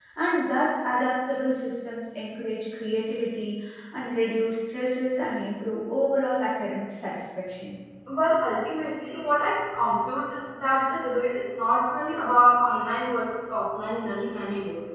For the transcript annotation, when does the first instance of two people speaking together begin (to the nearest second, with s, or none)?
none